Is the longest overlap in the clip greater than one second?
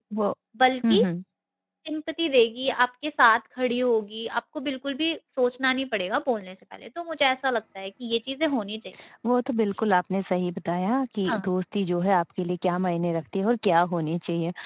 No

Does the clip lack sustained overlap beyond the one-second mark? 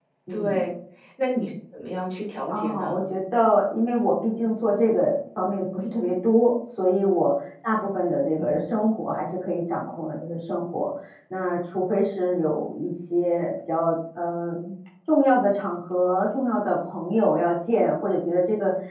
Yes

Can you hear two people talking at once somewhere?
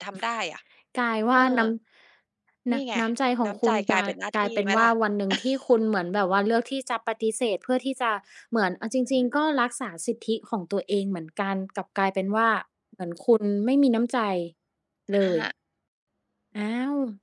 Yes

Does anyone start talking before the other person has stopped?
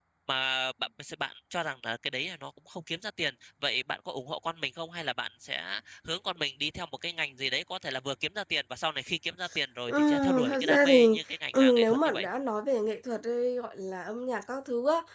Yes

